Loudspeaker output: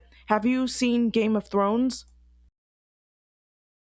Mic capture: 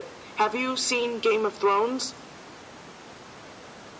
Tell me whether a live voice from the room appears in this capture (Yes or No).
No